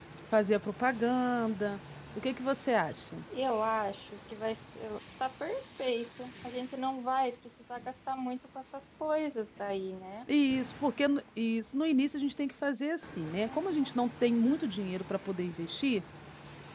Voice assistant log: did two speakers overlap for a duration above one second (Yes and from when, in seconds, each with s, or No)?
No